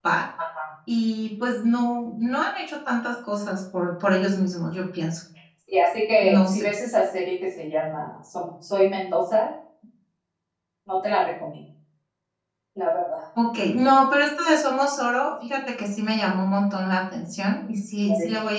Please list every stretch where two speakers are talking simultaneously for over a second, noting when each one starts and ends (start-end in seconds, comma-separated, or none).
none